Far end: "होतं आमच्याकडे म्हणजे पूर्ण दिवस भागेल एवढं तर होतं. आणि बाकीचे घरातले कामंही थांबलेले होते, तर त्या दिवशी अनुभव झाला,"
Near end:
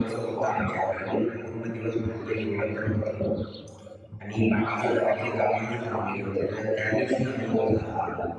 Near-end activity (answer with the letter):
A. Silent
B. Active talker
A